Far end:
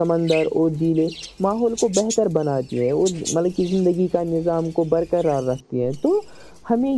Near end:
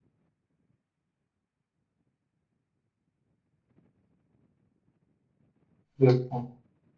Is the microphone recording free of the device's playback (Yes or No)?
Yes